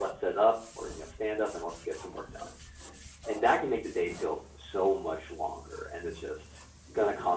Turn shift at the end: No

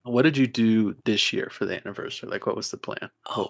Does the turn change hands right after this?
Yes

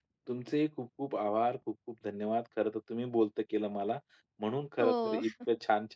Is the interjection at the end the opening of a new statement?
No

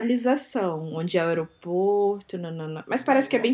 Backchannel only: No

